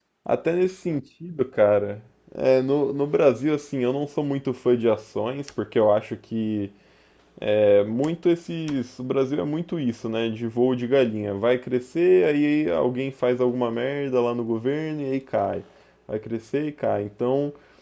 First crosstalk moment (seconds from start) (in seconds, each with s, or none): none